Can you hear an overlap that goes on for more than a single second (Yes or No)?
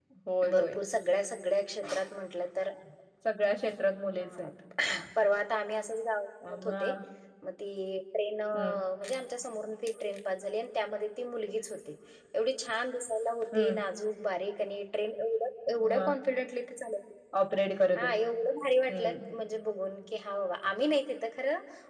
No